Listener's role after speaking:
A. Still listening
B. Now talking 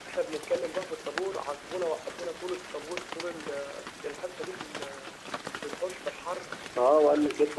B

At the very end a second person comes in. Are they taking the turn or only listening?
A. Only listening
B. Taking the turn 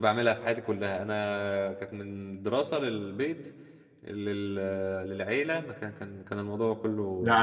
B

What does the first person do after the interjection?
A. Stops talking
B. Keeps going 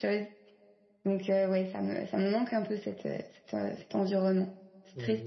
A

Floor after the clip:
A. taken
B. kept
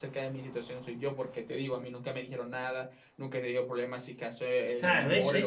A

